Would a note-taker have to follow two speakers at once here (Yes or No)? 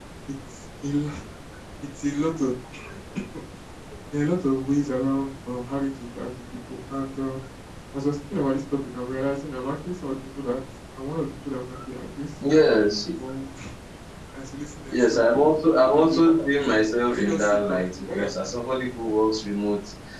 Yes